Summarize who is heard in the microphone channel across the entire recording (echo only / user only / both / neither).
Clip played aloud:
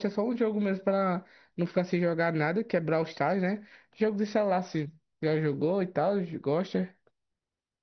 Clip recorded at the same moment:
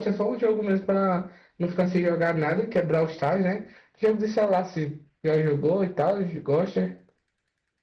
echo only